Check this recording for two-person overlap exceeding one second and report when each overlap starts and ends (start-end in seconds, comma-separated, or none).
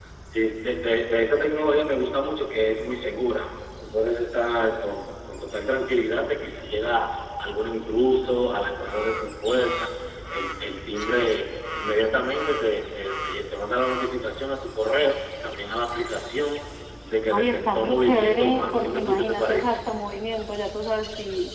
17.3-19.8